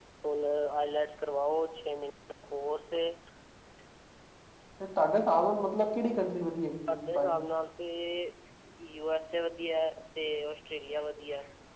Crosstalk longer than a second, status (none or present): none